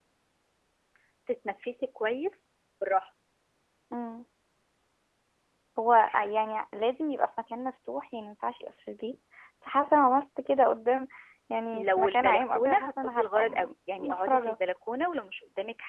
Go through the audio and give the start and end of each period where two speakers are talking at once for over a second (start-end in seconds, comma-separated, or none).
11.7-14.6